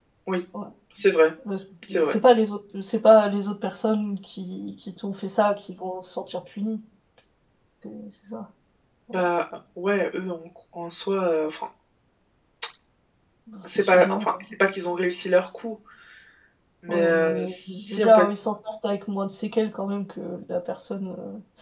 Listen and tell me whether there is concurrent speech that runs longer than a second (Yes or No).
Yes